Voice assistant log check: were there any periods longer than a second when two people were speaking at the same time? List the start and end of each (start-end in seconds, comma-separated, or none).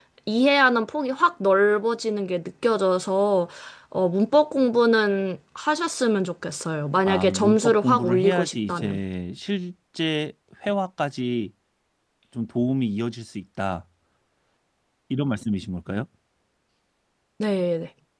7.1-9.0